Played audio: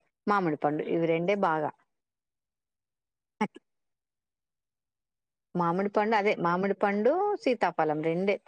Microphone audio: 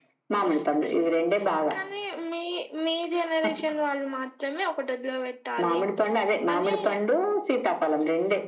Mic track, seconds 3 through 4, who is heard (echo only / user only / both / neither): user only